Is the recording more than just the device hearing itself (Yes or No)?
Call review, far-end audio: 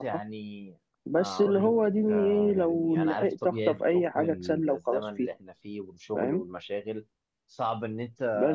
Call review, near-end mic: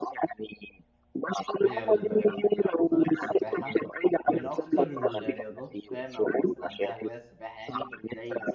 Yes